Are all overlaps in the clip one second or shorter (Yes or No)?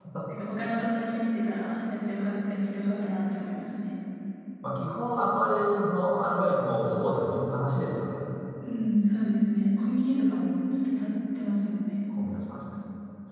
Yes